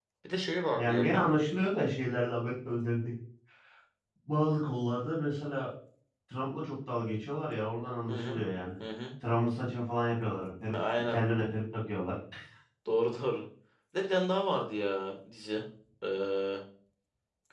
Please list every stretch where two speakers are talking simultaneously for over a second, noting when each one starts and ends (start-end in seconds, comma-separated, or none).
none